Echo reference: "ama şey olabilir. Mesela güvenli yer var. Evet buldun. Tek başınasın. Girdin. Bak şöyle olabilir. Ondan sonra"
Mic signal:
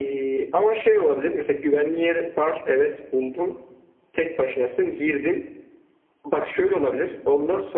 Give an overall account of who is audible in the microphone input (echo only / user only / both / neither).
echo only